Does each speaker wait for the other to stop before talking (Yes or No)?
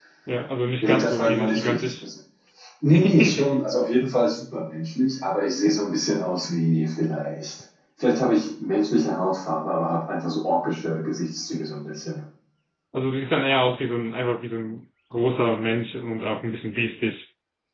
No